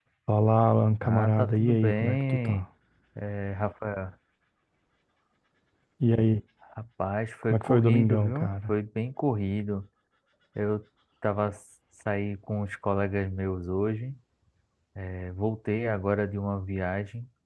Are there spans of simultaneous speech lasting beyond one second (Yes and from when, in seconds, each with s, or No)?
Yes, from 1.0 s